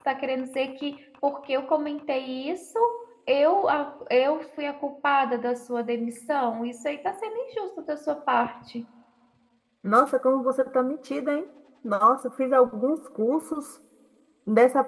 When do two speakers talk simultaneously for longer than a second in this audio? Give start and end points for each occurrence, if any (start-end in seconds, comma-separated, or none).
none